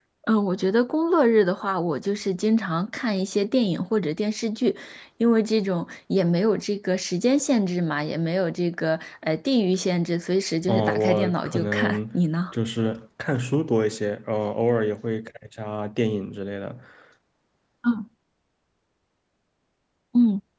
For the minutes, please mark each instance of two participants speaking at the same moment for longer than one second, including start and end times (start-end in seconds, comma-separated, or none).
10.7-12.0